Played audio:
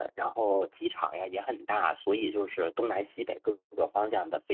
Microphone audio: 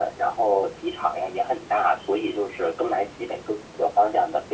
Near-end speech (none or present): none